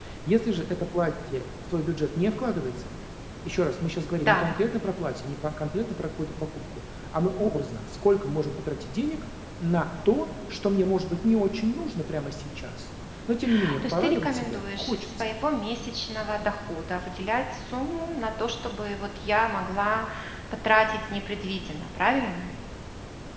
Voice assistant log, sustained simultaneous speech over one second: present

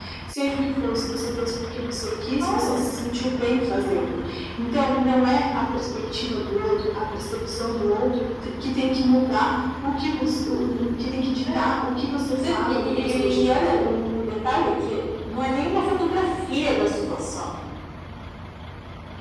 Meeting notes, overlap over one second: present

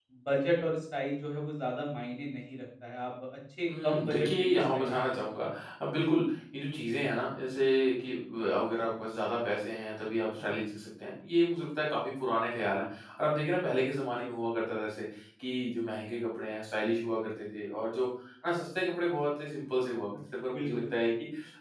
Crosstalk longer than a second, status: present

